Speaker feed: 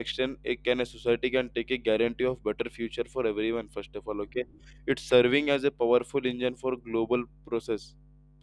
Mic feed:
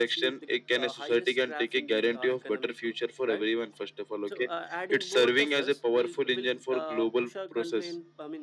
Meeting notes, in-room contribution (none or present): present